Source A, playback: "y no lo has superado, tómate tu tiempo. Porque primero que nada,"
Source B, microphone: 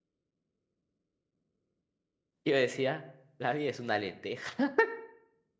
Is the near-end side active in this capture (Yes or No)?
Yes